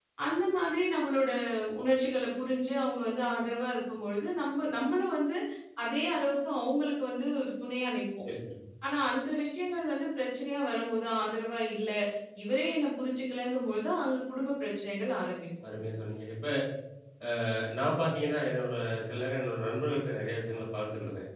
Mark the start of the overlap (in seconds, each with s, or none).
none